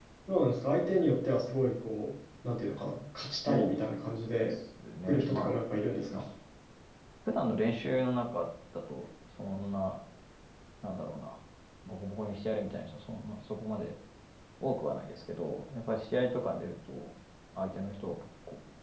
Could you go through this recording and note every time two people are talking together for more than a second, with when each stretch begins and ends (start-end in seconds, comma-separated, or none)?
none